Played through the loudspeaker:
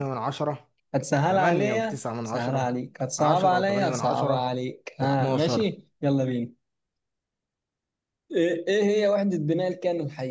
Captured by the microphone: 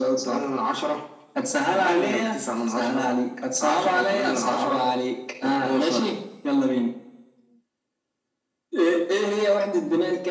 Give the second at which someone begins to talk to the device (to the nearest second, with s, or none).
none